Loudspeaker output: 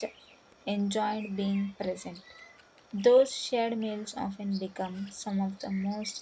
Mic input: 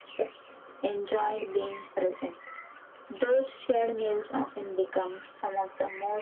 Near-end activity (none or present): none